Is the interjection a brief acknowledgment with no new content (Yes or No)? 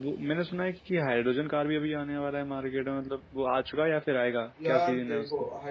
No